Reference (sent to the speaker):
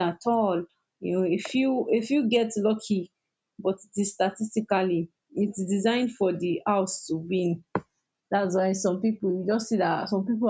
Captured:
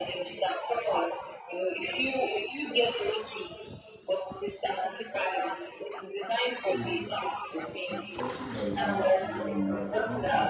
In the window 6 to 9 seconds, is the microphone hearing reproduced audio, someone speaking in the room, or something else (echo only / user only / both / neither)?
both